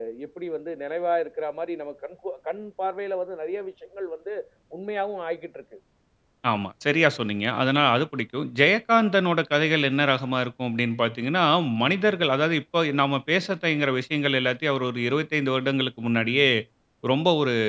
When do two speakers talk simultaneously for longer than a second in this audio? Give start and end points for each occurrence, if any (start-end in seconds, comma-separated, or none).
none